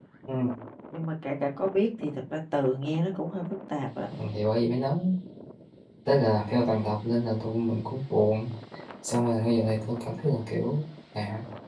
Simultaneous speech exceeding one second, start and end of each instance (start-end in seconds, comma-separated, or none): none